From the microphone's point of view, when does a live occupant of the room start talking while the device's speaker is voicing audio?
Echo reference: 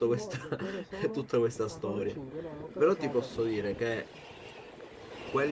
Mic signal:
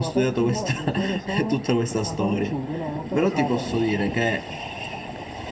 none

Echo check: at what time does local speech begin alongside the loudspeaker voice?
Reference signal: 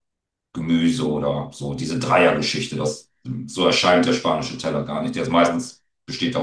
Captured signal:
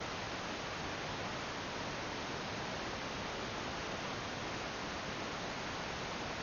none

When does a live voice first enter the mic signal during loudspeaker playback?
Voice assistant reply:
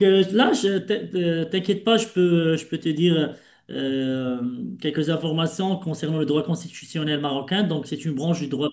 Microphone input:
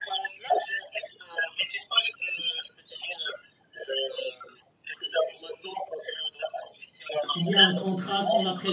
7 s

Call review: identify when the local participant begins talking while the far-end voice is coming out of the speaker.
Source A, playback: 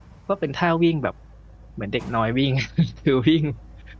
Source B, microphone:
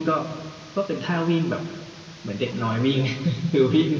none

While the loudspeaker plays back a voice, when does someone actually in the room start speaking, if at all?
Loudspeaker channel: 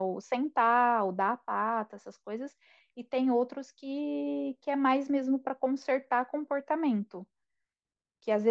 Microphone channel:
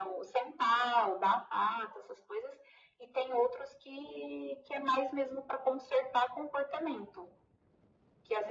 none

